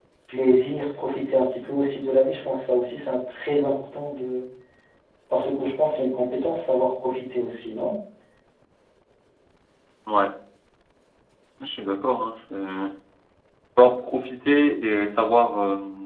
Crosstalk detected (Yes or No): No